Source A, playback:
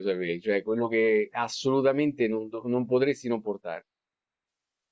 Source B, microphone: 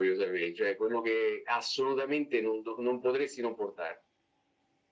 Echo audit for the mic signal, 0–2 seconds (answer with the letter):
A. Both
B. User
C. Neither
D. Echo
D